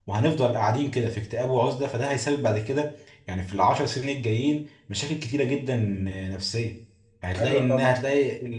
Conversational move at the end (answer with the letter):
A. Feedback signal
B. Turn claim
A